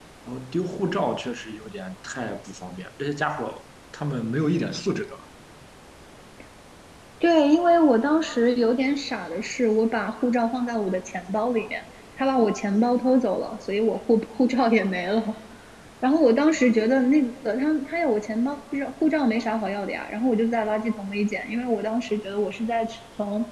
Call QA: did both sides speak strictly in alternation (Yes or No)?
Yes